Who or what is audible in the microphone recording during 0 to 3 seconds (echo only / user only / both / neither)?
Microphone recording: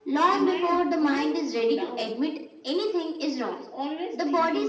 echo only